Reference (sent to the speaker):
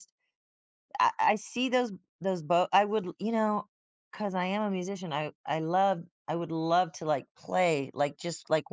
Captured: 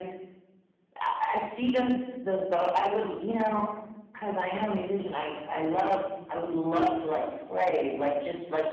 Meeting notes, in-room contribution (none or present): none